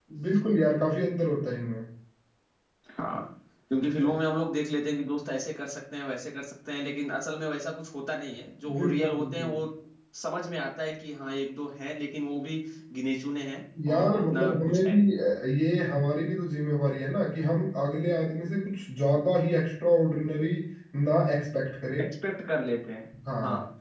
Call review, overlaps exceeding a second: present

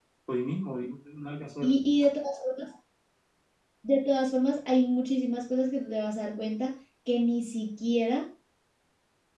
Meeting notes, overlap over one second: none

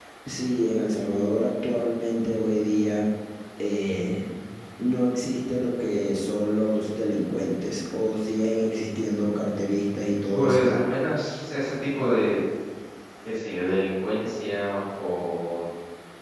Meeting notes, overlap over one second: none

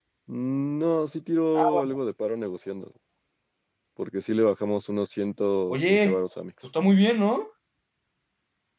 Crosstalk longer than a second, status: none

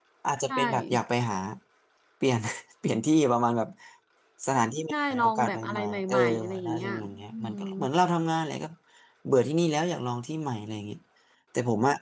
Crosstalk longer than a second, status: present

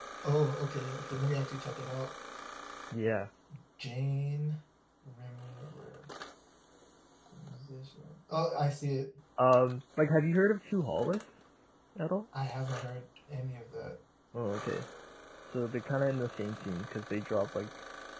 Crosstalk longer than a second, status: none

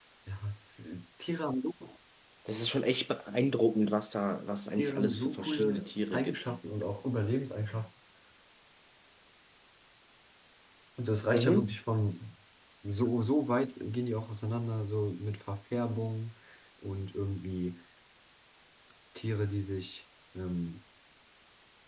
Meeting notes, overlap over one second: present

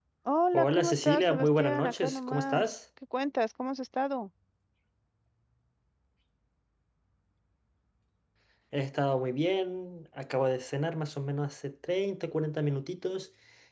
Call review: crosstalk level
present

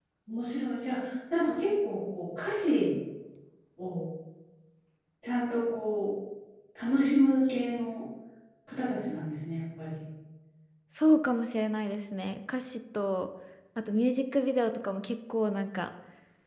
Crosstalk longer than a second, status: none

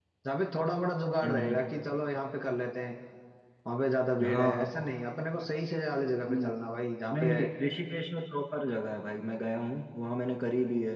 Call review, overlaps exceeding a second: none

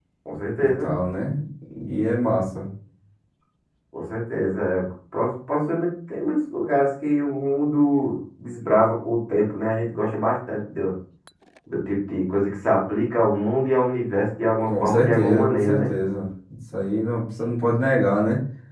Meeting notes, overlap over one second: present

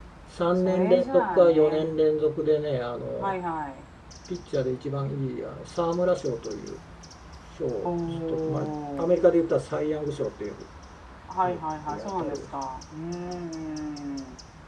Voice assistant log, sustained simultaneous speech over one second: present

